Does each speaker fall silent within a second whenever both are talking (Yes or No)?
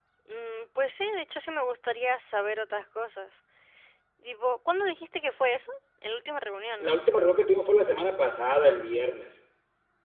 Yes